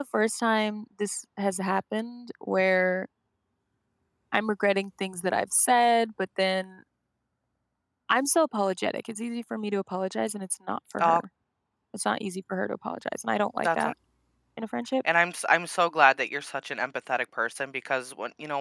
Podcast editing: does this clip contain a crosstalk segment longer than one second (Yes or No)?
No